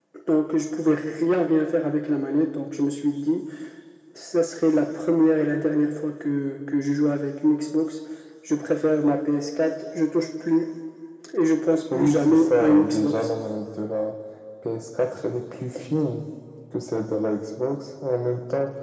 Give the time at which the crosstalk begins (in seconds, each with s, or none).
11.9 s